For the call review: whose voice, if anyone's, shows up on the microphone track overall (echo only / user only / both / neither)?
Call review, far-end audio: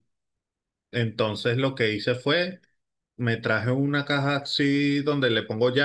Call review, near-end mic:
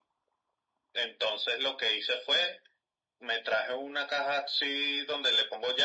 echo only